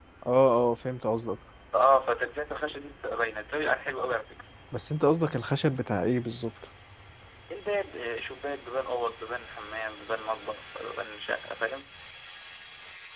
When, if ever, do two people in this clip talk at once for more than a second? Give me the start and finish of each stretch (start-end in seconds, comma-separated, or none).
none